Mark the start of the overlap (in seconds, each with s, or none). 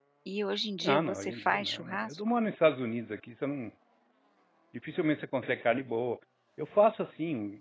0.8 s